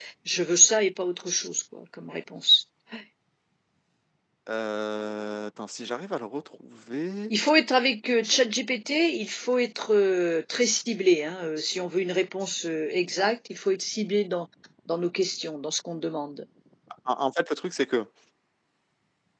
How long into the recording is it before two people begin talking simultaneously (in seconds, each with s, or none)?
none